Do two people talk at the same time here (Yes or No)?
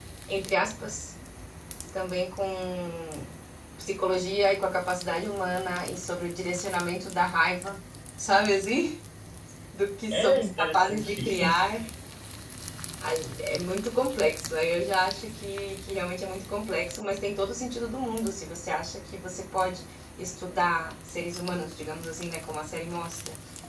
Yes